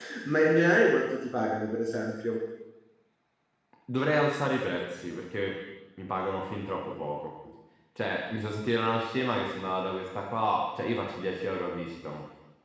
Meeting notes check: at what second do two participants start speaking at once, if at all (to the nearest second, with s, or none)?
none